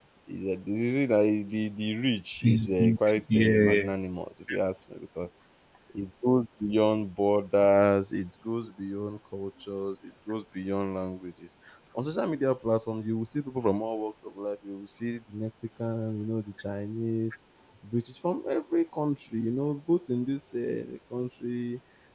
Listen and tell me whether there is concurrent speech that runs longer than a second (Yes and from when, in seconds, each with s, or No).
Yes, from 2.4 s